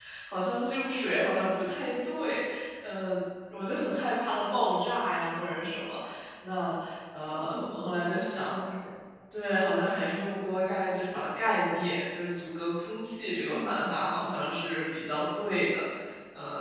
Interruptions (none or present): present